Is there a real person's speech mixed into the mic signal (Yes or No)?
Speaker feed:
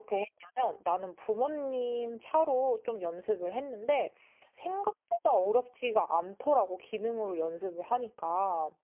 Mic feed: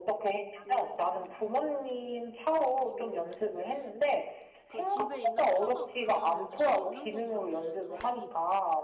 Yes